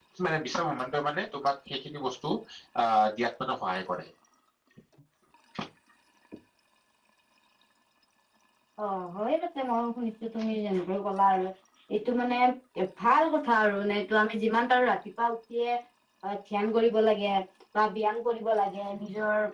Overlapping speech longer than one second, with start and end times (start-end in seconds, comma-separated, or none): none